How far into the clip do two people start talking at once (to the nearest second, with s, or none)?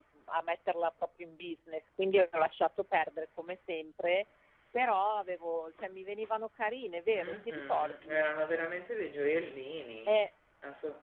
7 s